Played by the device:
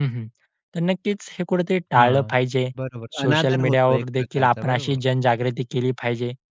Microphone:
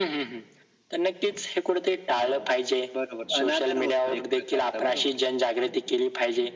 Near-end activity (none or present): none